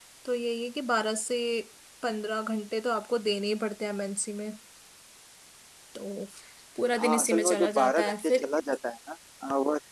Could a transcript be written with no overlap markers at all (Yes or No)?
No